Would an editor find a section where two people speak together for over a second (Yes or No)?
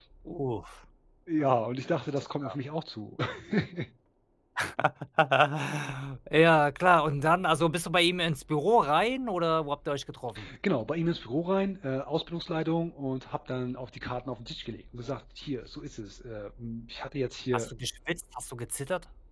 No